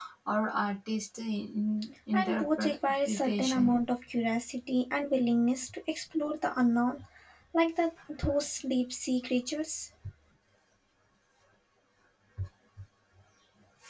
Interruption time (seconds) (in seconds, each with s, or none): 2.1 s